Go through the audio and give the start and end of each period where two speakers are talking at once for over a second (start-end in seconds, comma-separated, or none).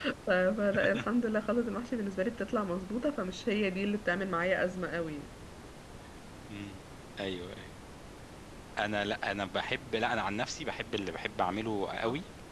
none